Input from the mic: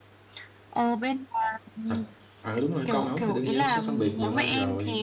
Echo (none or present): present